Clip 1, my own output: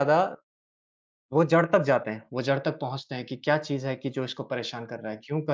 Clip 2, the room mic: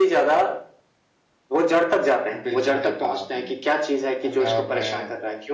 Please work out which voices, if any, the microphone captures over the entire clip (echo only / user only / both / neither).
both